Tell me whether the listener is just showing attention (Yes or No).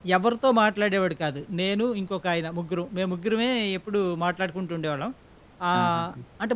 Yes